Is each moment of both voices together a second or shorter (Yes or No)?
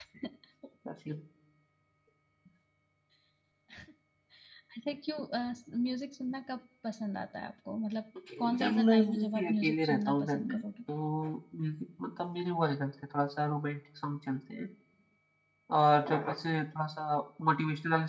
No